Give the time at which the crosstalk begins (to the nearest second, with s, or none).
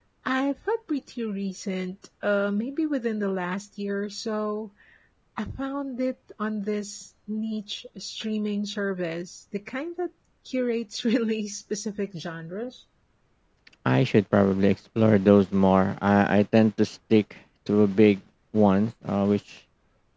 none